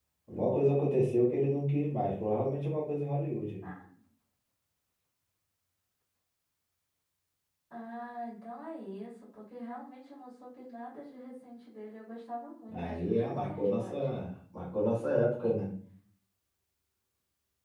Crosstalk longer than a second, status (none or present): present